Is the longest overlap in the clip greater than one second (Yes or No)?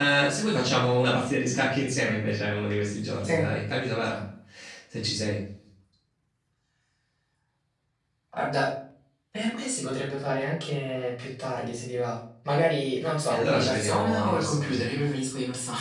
Yes